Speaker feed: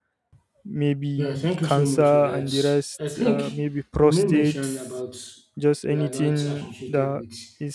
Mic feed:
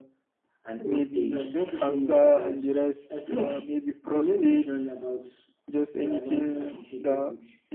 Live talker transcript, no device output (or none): an old age.